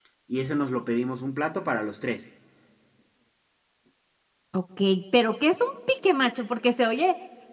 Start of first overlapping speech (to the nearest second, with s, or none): none